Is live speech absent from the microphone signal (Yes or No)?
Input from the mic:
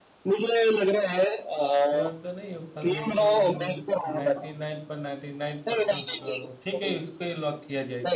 No